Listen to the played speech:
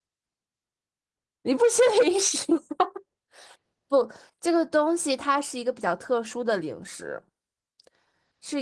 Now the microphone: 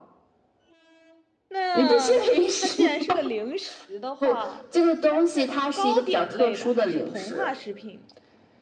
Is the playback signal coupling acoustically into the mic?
Yes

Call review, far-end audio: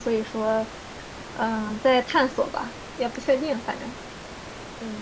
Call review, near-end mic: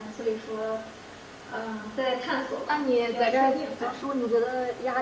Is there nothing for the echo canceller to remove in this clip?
No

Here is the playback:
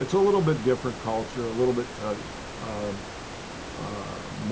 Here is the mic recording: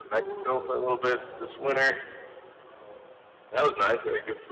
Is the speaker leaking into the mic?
Yes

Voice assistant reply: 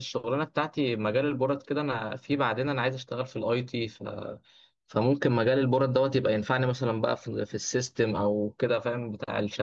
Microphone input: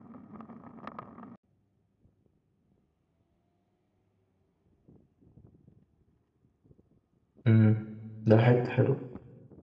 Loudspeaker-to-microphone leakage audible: No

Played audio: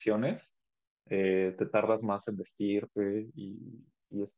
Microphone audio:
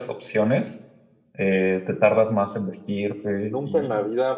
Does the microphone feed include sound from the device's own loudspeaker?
Yes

